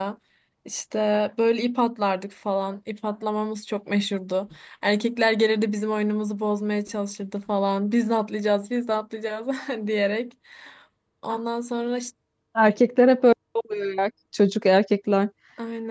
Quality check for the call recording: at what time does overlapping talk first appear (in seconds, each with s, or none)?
none